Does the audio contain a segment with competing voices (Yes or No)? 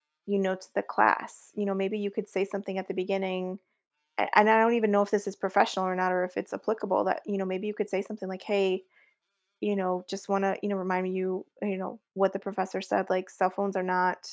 No